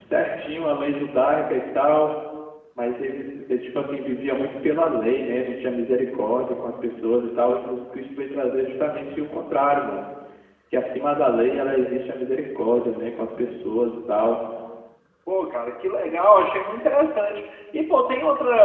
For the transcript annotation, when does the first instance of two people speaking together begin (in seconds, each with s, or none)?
none